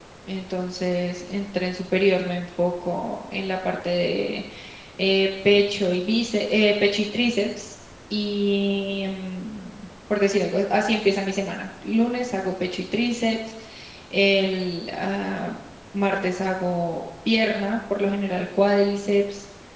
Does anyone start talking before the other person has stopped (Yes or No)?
No